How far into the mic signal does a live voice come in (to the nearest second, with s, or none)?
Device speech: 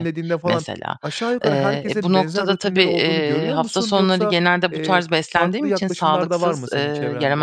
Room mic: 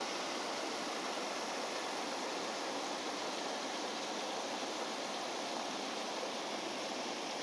none